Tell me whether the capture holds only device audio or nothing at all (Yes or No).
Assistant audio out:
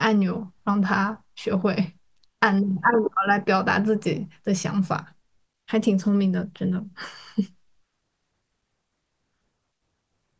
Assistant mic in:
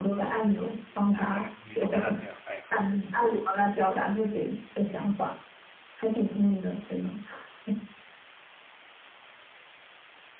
No